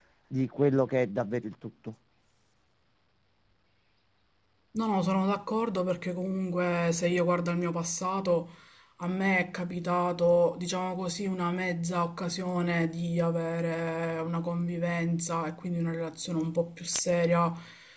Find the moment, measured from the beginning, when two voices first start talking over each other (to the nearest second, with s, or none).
none